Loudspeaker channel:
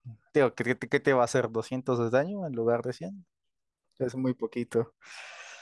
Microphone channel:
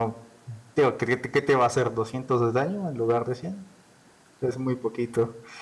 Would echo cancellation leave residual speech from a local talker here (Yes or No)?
No